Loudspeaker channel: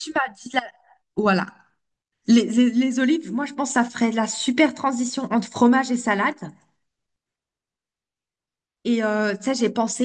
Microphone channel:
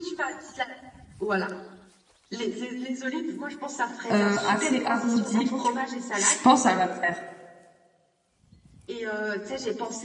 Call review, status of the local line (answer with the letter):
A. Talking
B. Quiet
A